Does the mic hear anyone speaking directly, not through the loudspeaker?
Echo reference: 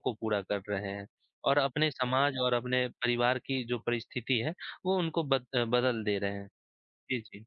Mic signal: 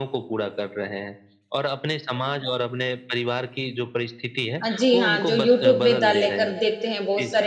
Yes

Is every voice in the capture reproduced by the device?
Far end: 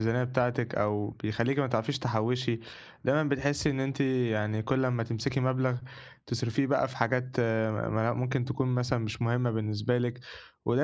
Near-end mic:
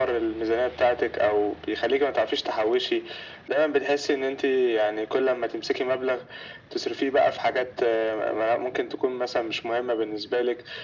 Yes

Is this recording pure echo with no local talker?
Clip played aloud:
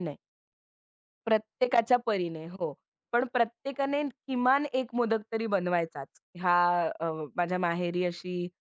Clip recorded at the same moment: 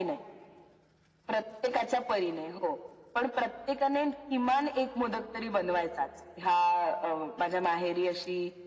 Yes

